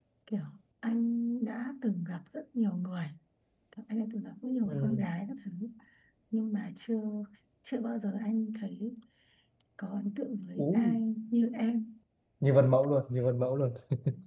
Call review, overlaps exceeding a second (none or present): none